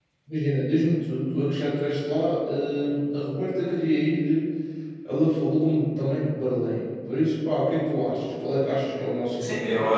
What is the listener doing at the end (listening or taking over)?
taking over